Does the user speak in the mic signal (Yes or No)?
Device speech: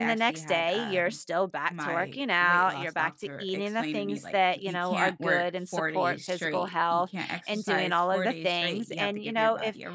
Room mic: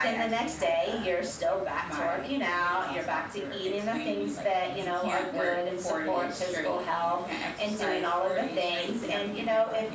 No